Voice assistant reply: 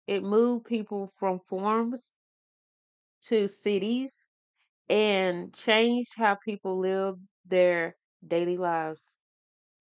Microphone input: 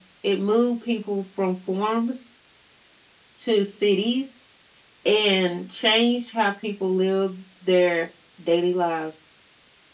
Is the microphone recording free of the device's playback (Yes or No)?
No